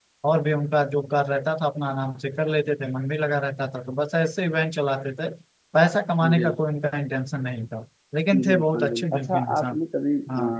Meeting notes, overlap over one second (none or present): present